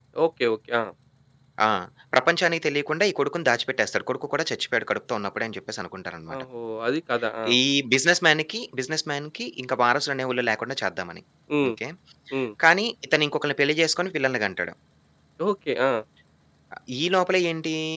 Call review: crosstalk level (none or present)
none